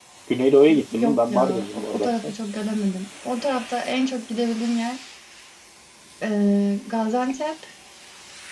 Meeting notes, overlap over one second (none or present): present